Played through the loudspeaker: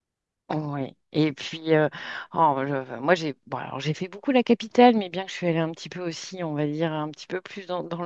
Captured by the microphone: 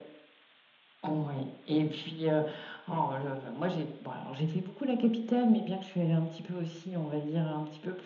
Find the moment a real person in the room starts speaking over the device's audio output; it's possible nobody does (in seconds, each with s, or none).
none